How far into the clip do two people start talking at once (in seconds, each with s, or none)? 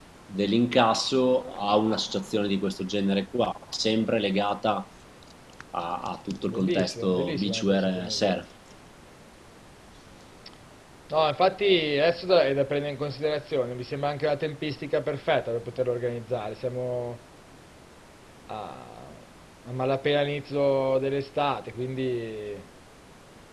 6.5 s